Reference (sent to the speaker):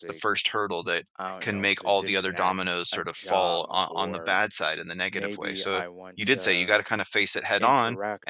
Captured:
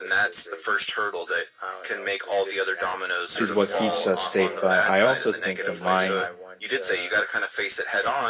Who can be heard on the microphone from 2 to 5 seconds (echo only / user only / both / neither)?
both